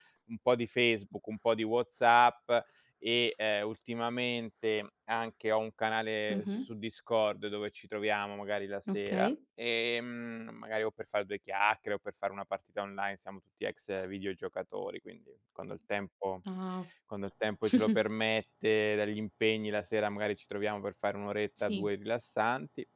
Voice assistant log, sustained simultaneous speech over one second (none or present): none